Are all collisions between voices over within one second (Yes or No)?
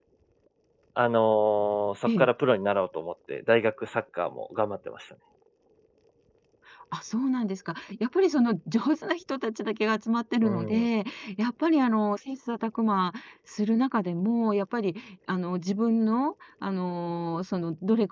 Yes